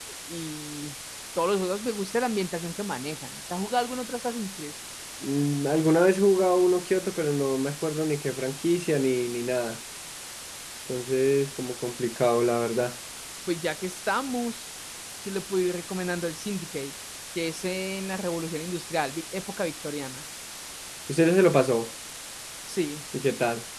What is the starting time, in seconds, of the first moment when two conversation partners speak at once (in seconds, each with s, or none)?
none